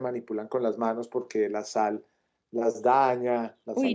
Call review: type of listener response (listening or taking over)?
taking over